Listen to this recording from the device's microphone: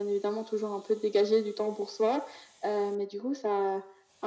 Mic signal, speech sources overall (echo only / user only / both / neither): echo only